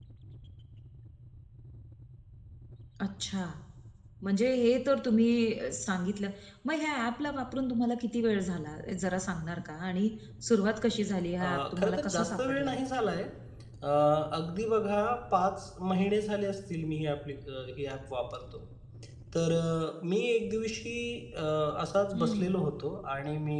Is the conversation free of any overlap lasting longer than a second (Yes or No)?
No